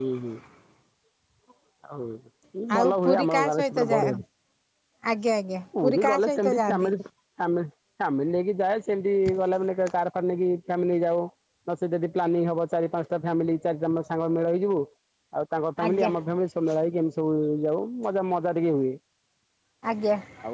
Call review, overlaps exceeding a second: present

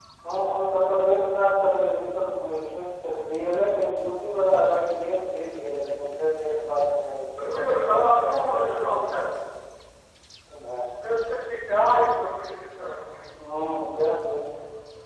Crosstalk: present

